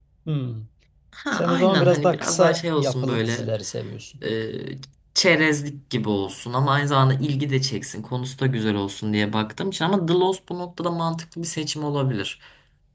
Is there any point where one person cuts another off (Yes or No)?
Yes